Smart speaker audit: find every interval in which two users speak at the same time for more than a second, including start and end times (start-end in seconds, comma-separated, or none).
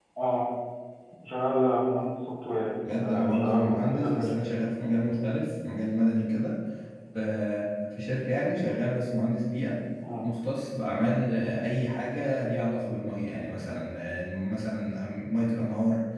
2.9-4.3